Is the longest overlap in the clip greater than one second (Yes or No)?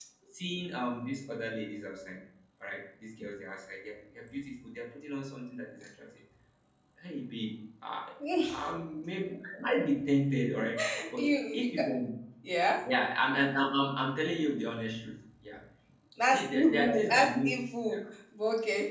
Yes